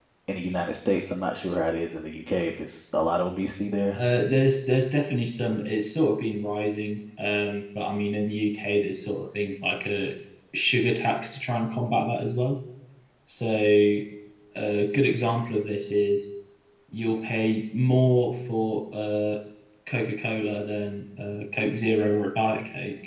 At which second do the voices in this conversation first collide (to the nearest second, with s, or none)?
none